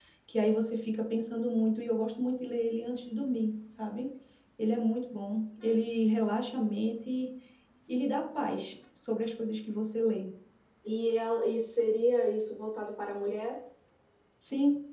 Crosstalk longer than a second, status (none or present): none